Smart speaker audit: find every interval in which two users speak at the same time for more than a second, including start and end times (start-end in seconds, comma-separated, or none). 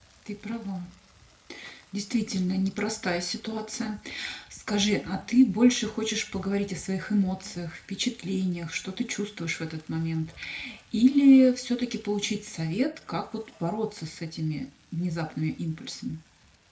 none